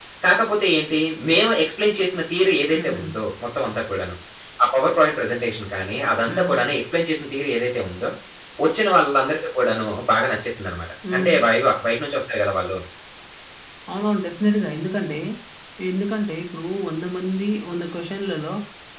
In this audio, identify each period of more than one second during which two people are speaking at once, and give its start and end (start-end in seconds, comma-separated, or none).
none